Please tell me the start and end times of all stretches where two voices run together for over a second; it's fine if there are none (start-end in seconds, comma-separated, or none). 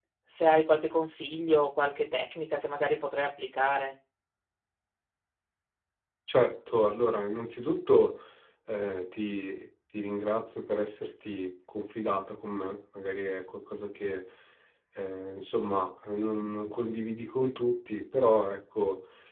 none